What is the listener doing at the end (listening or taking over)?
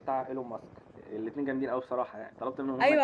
taking over